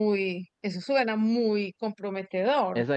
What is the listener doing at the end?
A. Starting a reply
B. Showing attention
A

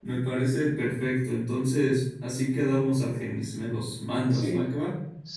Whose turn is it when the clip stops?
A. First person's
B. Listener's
B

